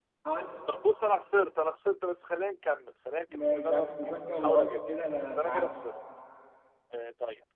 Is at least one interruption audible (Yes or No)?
Yes